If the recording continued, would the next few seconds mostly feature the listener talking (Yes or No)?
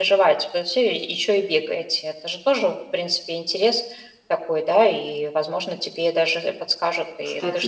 Yes